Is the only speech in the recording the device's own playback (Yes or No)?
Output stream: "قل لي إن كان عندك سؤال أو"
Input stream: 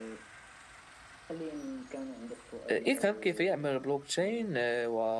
No